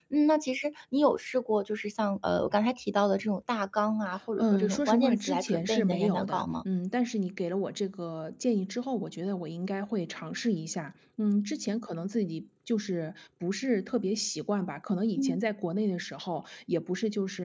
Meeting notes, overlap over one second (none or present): present